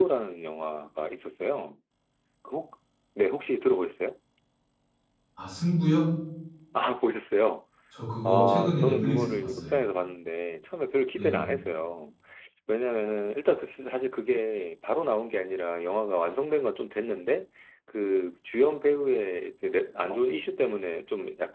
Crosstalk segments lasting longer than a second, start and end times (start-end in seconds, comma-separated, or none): 8.2-9.7